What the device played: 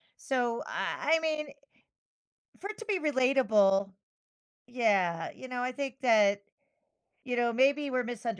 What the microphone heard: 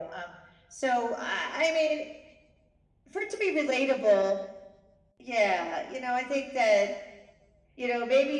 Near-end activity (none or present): none